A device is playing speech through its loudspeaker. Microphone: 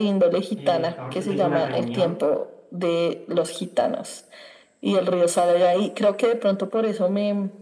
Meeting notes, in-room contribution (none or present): present